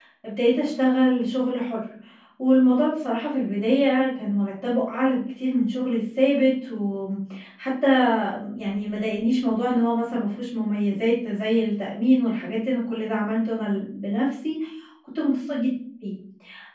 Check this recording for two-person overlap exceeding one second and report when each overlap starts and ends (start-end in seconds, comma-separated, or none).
none